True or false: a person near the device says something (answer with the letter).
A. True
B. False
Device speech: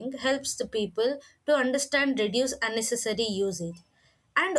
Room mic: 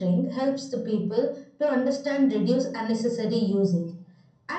B